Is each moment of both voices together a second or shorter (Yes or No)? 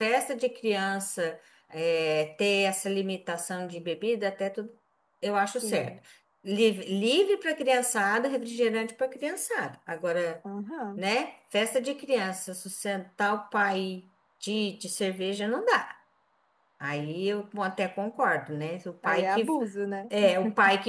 Yes